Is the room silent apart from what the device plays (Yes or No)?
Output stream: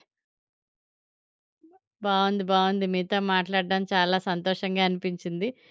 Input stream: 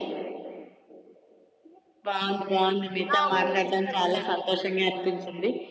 No